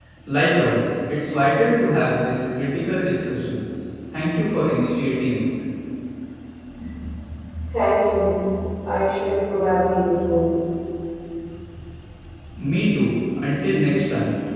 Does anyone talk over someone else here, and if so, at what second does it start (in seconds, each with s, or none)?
none